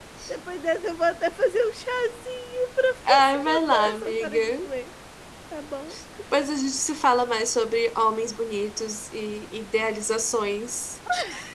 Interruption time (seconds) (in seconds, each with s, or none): 3.0 s